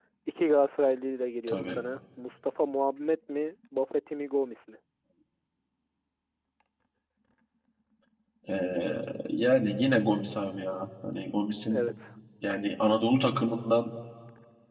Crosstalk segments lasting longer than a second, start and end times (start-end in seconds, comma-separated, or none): none